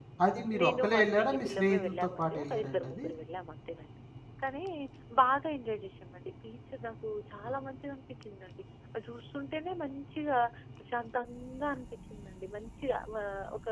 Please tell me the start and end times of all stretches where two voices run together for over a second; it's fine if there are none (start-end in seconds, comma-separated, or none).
0.6-3.1